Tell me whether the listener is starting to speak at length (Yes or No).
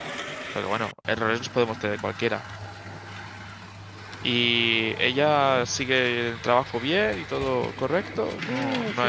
Yes